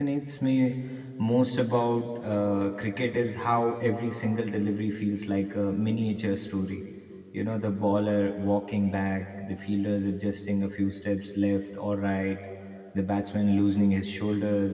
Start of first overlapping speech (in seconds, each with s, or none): none